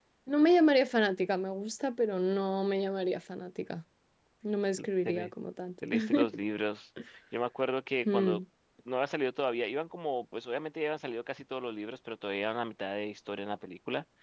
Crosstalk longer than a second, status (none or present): none